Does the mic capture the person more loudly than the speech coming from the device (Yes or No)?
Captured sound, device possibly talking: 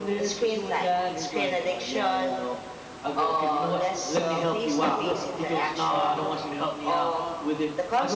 No